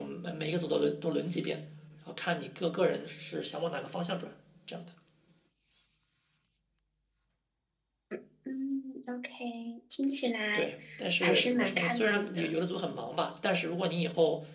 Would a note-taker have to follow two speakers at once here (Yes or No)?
Yes